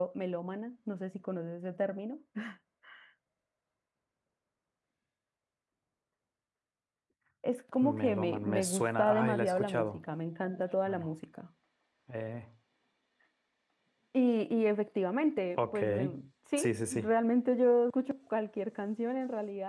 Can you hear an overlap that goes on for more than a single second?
Yes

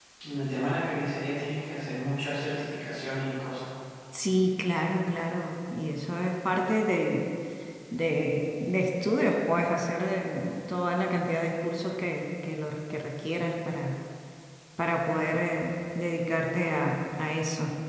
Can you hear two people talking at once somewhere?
No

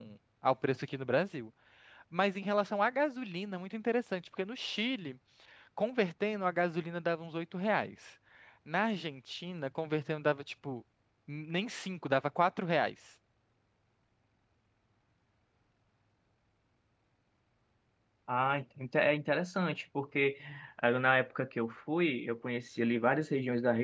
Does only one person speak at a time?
Yes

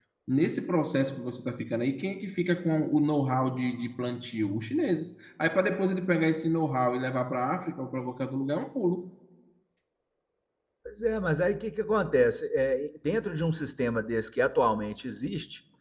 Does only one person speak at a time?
Yes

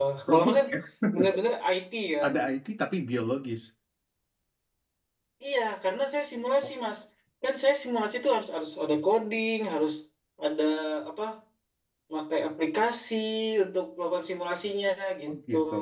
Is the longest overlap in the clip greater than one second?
No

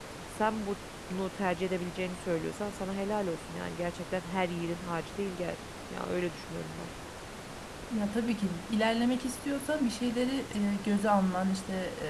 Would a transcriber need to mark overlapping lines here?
No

